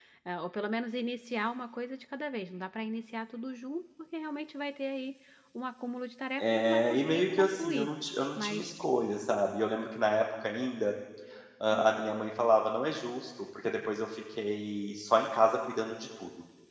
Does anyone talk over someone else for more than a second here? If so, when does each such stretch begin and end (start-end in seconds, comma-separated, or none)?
6.4-7.9